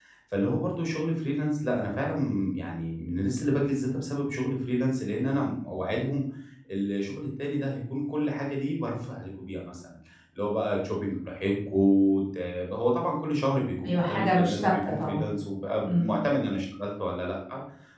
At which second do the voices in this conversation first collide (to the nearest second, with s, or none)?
14 s